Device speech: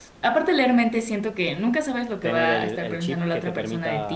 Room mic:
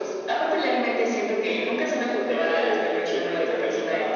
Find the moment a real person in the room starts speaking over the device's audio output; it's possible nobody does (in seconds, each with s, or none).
none